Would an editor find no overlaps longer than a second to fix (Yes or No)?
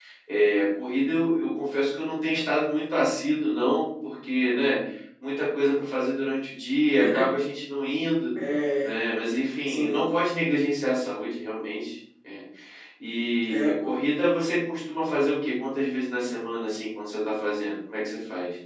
Yes